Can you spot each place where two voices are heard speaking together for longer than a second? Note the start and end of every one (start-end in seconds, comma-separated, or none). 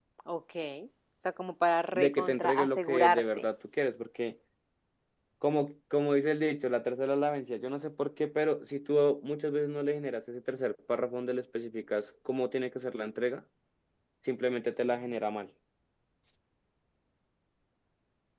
1.9-3.5